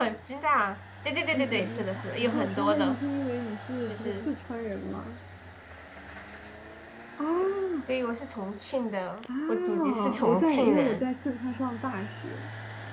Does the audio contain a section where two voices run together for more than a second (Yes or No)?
Yes